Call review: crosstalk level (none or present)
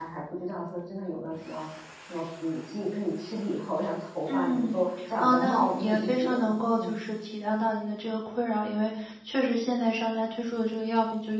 present